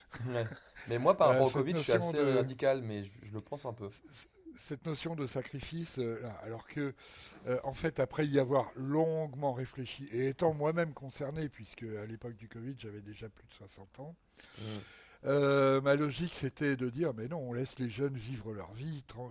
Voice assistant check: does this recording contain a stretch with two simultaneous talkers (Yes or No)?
Yes